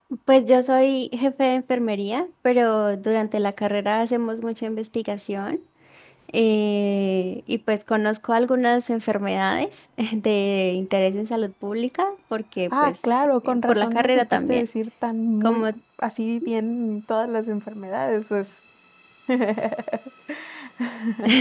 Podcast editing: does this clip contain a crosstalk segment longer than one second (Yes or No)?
Yes